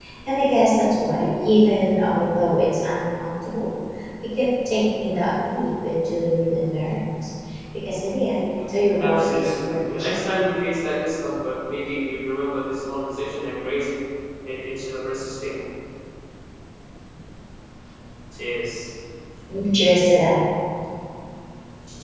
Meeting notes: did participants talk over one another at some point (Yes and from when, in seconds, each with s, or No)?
Yes, from 9.0 s